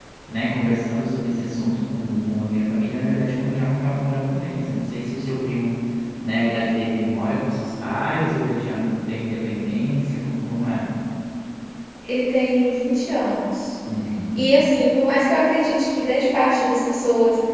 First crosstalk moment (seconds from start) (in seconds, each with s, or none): none